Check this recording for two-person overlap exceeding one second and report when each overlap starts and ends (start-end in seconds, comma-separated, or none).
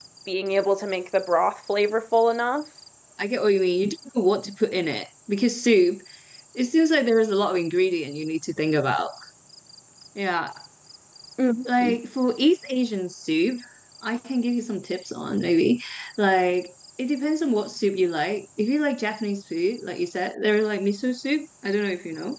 none